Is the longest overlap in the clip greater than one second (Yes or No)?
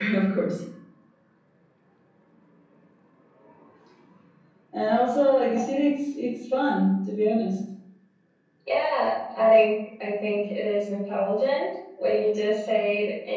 No